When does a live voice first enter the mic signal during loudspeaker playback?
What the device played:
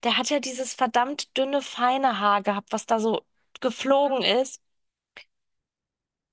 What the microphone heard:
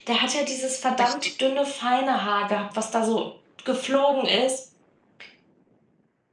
0.9 s

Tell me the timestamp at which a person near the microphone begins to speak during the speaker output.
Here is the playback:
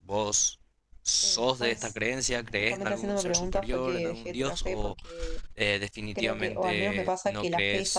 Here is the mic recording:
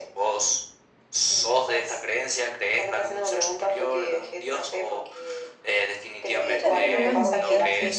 6.3 s

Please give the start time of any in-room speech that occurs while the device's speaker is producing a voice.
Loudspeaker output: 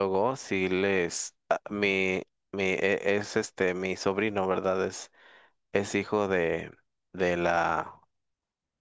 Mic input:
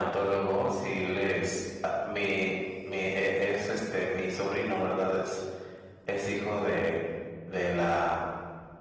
none

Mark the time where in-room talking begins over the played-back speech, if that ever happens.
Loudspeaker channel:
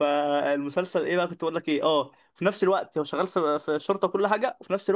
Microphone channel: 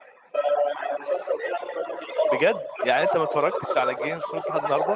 2.3 s

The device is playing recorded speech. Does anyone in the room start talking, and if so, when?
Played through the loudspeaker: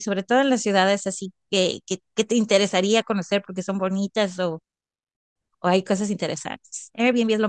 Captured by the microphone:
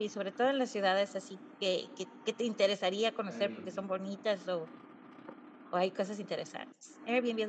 3.3 s

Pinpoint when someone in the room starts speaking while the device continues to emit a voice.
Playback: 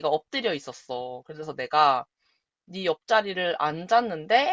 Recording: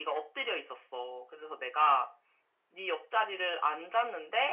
none

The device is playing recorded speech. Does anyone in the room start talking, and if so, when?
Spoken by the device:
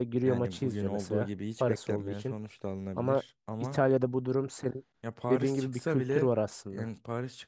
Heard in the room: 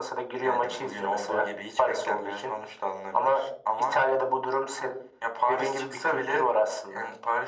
none

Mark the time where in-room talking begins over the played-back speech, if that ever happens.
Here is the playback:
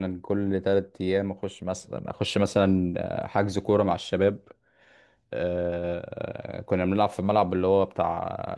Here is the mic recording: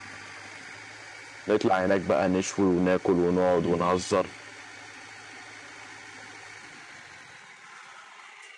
1.5 s

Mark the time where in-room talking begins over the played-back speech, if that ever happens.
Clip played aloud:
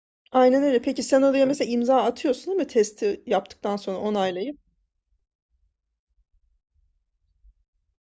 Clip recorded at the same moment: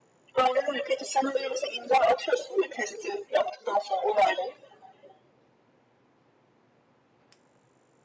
none

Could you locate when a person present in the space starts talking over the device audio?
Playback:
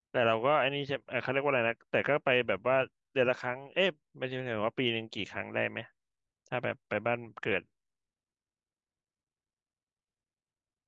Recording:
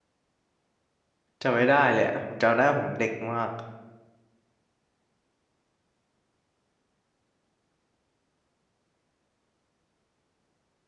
1.4 s

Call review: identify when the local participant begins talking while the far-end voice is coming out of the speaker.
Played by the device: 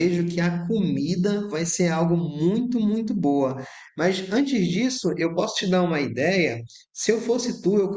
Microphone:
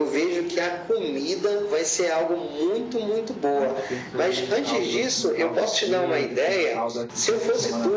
3.5 s

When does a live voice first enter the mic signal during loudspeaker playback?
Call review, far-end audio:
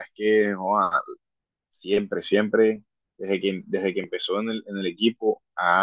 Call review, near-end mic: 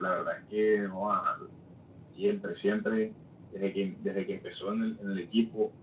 none

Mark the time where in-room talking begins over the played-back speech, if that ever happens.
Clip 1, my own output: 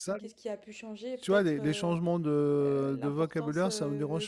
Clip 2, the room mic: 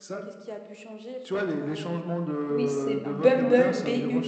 2.5 s

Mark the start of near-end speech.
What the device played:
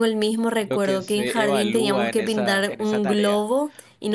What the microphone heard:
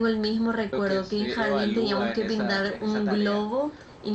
none

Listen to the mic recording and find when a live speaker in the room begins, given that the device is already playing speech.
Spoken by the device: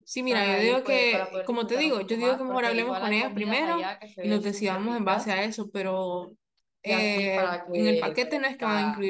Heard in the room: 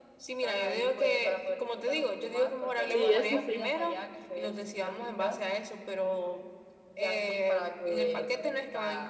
2.8 s

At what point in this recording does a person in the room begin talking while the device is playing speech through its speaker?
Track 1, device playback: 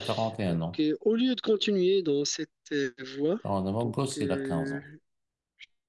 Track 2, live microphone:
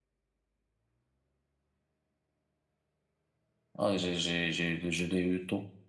3.8 s

